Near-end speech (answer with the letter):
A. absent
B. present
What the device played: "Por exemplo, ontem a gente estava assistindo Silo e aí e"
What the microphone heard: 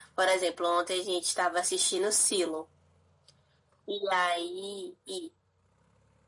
A